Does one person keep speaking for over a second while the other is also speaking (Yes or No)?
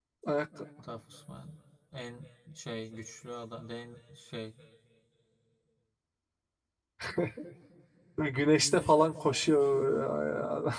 No